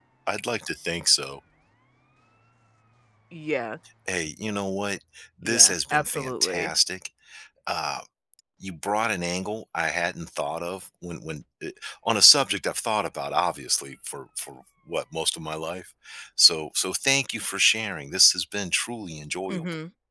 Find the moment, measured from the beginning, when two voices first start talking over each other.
5.4 s

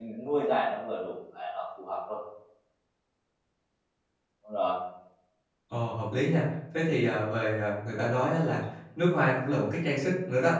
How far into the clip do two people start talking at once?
none

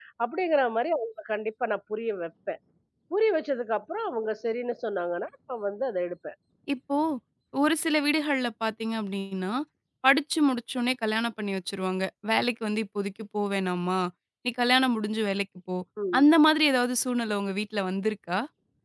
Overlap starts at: none

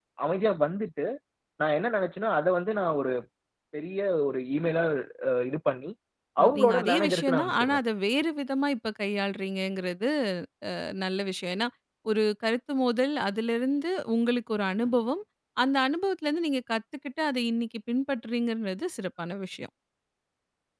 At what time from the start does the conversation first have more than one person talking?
6.6 s

